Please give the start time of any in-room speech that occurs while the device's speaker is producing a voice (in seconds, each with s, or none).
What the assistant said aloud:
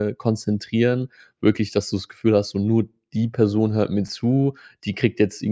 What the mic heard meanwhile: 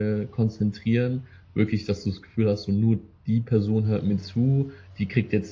none